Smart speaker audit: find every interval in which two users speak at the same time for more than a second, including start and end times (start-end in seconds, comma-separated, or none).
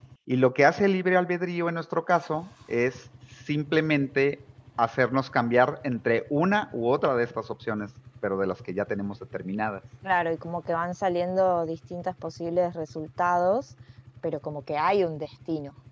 none